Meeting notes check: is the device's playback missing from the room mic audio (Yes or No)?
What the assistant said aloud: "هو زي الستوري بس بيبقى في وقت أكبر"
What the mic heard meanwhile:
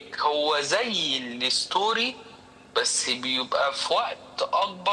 No